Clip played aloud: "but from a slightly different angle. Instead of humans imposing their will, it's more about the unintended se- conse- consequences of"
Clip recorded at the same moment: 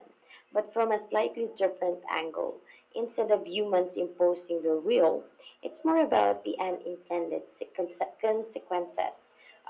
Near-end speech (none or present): none